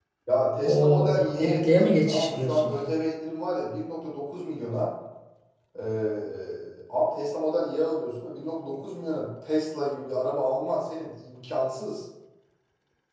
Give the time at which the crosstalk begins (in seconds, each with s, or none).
0.6 s